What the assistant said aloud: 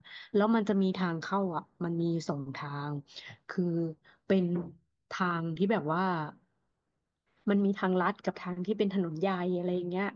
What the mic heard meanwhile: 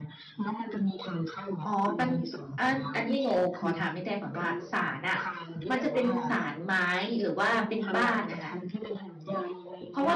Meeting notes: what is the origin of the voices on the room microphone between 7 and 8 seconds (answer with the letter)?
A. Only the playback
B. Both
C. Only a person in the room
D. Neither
B